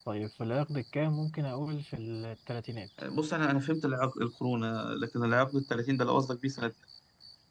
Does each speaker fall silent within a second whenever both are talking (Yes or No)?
Yes